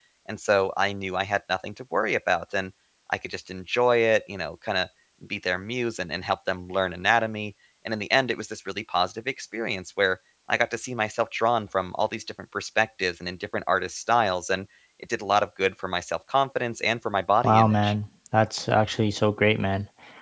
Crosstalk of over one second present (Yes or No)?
No